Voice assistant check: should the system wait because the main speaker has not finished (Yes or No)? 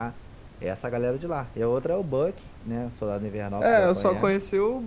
No